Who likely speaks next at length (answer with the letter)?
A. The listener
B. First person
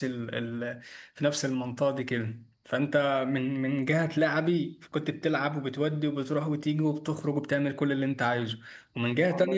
B